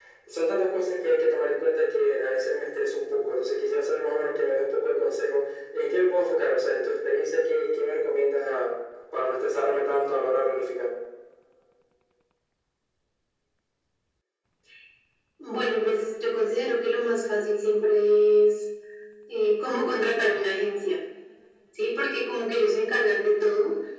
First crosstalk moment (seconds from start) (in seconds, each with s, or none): none